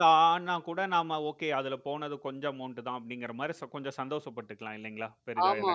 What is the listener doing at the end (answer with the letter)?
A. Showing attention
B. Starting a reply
B